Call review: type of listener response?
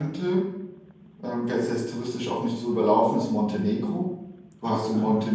listening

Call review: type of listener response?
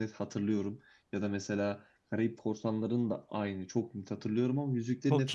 taking over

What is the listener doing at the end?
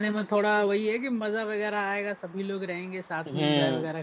taking over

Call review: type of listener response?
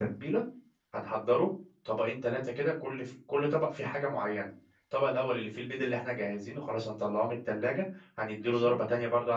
listening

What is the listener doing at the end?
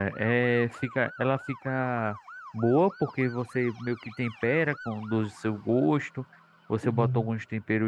listening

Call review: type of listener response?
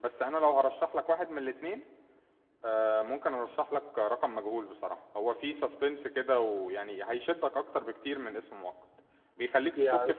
listening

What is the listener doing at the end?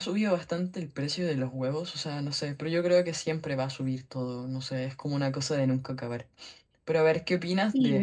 listening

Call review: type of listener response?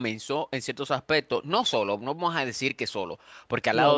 listening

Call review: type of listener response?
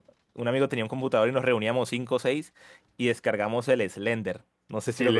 taking over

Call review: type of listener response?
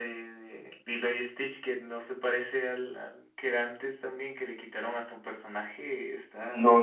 taking over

